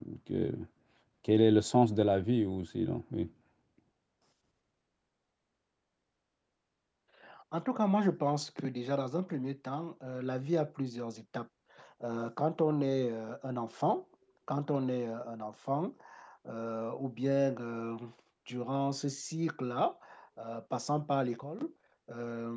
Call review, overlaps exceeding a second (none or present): none